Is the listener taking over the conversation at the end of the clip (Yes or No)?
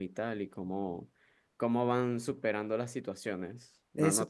Yes